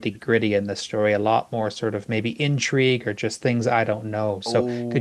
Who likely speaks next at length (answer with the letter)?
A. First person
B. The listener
B